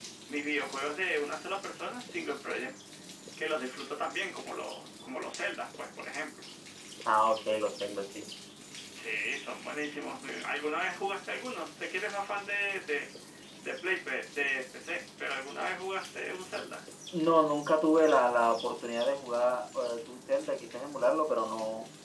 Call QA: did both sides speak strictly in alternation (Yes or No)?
Yes